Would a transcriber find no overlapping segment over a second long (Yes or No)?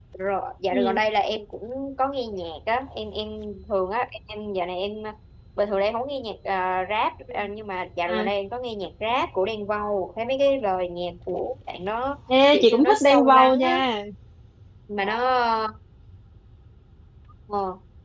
No